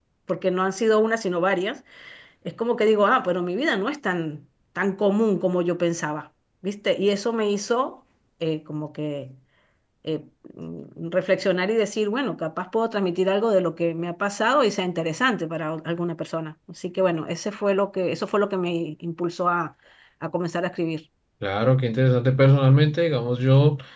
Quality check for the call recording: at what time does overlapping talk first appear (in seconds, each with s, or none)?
none